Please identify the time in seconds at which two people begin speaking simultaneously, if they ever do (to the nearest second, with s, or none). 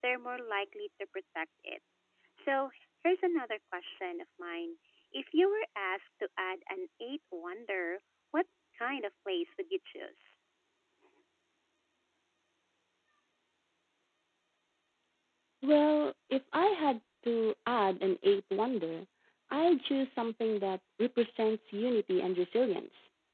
none